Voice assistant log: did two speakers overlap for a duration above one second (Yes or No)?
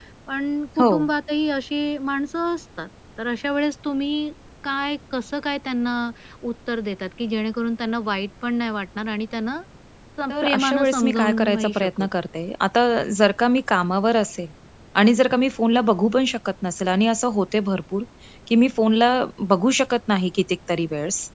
Yes